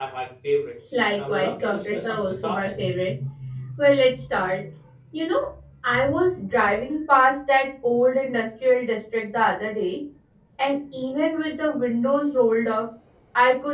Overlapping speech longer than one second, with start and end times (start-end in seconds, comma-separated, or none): 0.9-2.7